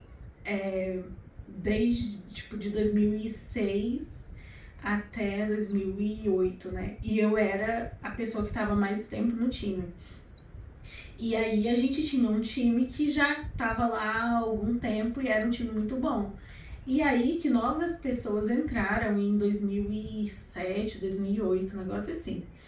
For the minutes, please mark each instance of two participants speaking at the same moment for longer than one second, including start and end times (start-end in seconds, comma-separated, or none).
none